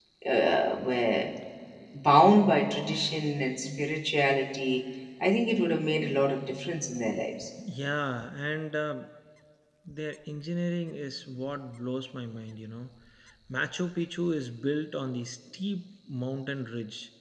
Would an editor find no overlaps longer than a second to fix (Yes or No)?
Yes